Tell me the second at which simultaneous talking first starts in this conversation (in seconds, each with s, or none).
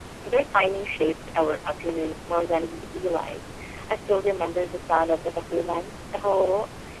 none